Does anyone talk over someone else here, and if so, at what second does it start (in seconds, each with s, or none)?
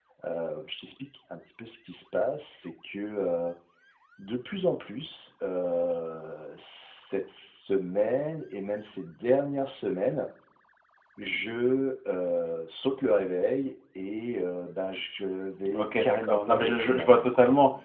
15.7 s